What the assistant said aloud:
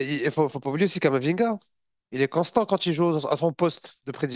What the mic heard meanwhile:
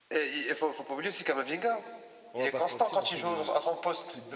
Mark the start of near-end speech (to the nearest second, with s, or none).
2 s